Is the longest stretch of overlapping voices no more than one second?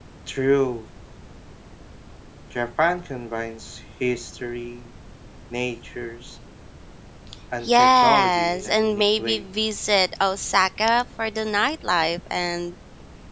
No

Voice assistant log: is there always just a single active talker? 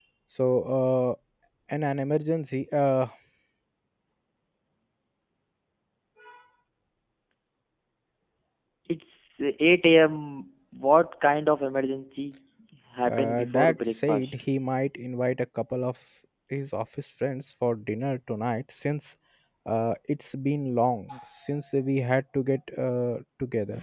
No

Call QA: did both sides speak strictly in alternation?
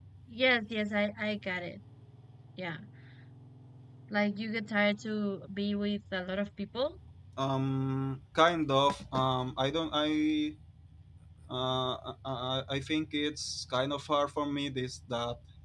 Yes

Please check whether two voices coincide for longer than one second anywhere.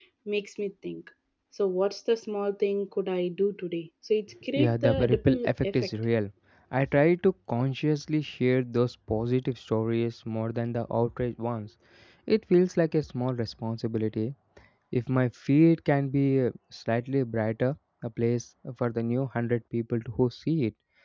Yes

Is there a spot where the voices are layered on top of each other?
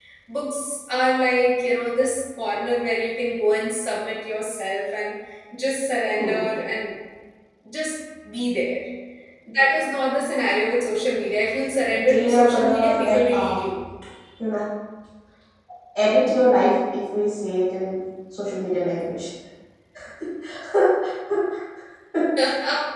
Yes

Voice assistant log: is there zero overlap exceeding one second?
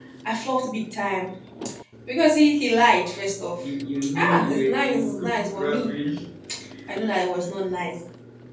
No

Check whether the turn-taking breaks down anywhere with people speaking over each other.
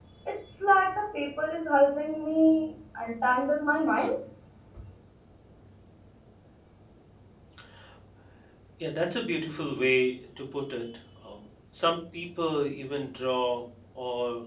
No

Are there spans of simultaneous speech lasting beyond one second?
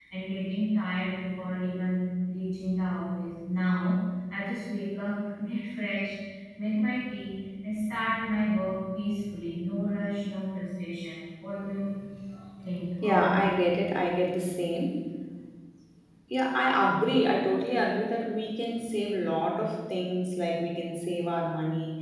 No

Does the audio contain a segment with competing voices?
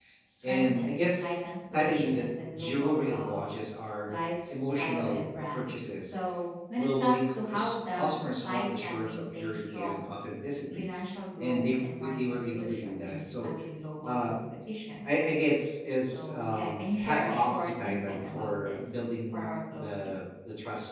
Yes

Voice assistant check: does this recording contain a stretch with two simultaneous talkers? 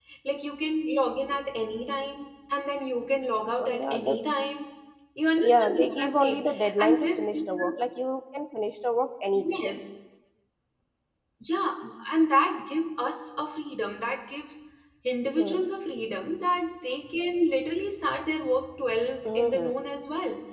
Yes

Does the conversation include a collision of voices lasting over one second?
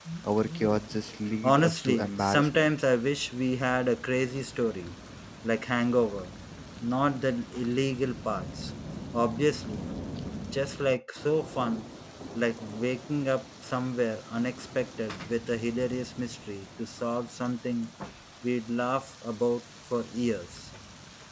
Yes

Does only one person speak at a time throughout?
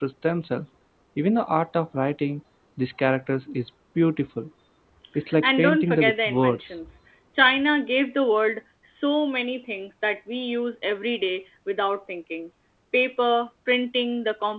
No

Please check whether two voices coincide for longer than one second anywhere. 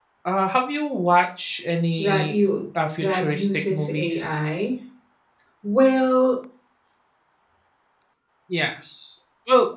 Yes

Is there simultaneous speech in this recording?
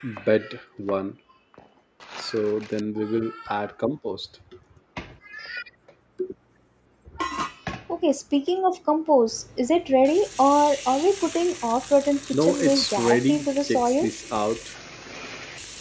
Yes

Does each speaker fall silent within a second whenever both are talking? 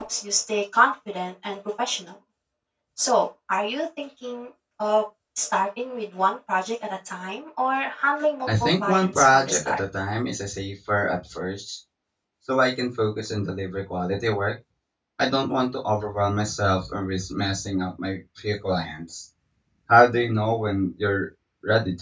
No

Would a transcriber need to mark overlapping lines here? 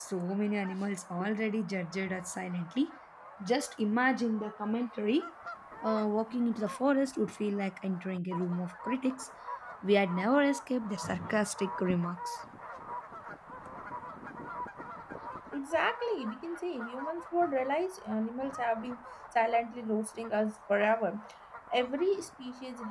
No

